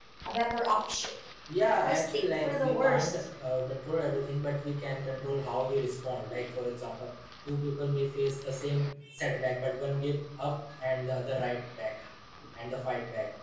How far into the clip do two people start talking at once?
1.8 s

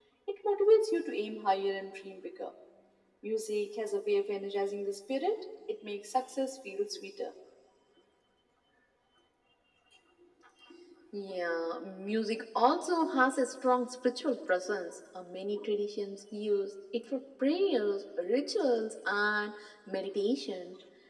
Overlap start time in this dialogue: none

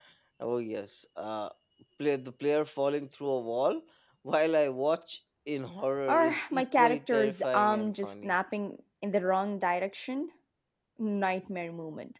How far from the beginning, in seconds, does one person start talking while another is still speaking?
6.1 s

